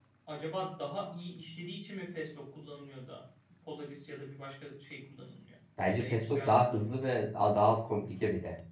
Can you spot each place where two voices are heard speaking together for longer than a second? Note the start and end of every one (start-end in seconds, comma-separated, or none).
5.8-7.1